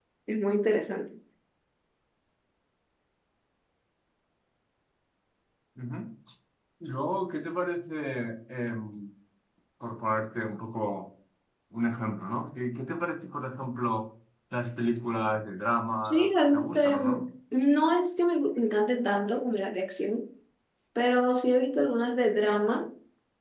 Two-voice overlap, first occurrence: 16 s

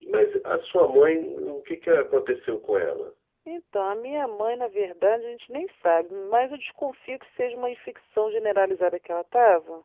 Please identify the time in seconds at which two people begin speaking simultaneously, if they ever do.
none

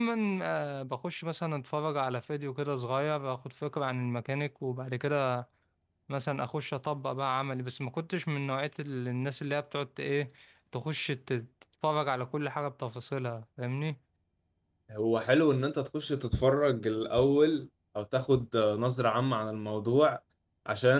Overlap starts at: none

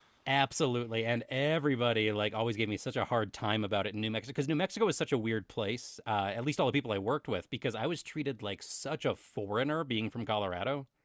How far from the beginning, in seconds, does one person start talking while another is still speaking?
none

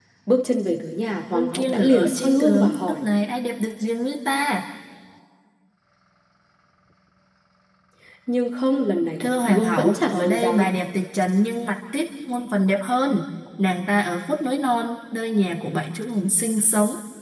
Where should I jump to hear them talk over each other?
1 s

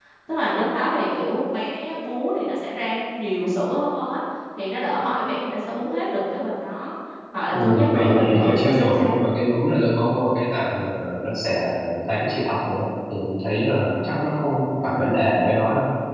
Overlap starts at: 8 s

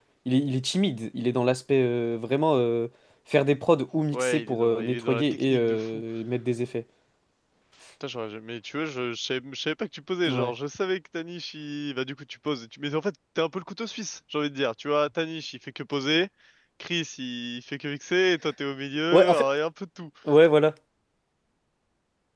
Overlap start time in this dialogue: 4 s

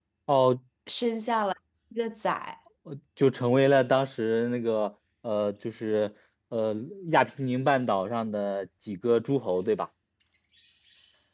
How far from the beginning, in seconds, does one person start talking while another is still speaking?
none

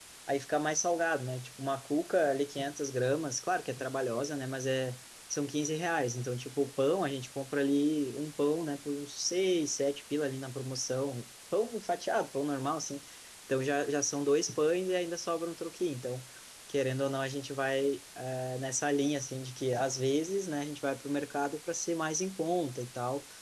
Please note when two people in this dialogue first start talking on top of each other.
none

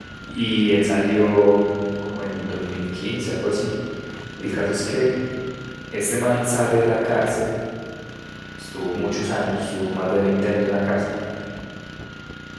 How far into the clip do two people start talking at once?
none

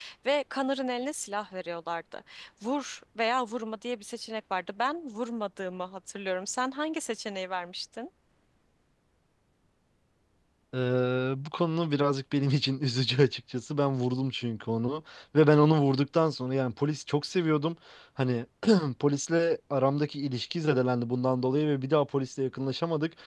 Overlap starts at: none

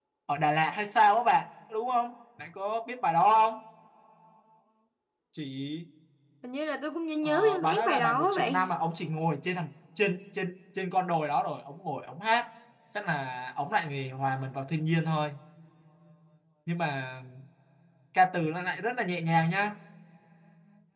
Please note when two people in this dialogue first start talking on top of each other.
7 s

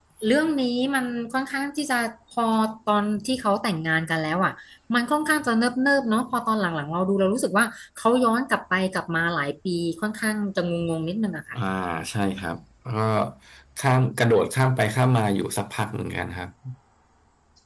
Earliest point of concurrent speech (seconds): none

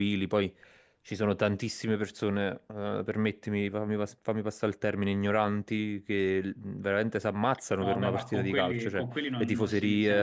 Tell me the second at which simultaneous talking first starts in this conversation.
8 s

